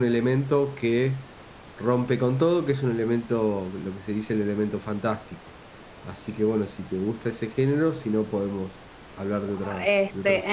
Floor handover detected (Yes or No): Yes